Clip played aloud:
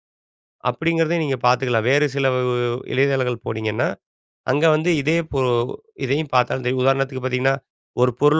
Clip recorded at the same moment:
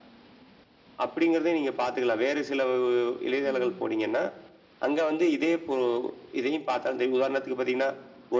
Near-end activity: present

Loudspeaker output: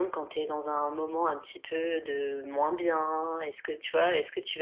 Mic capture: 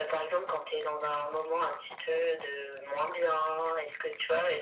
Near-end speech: none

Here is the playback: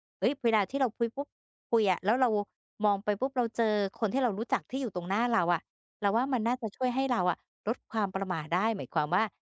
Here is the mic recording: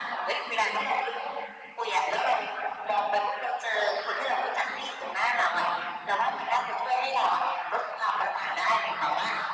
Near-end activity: none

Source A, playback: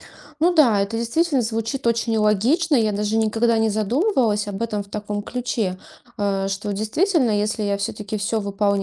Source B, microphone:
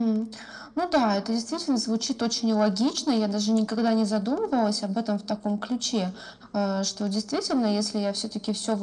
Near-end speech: none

